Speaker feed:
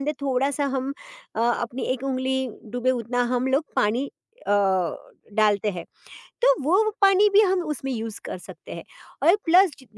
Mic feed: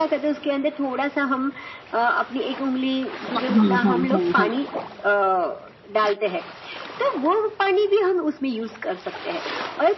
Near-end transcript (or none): हुँ, हुँ, हुँ, हुँ, हुँ, हुँ।